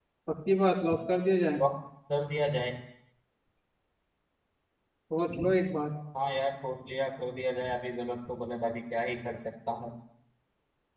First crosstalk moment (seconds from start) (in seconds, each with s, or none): none